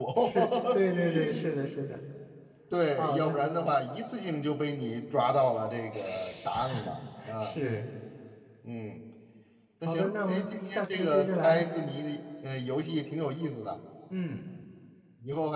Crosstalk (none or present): present